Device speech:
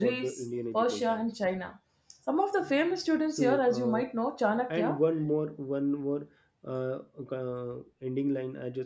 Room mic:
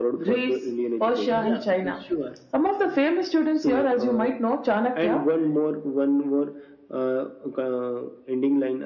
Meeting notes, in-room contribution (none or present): present